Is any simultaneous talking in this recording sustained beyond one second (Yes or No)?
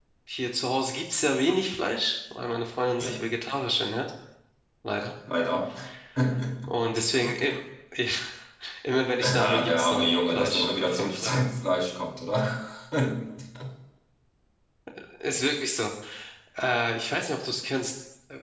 Yes